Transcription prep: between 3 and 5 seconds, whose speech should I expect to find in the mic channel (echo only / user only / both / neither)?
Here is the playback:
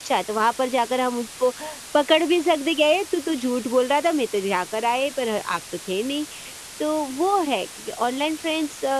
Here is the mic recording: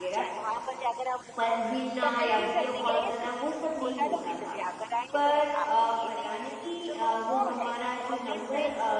both